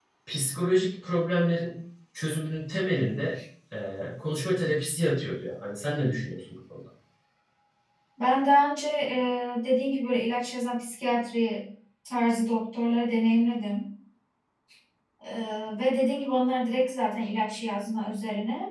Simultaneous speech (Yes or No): No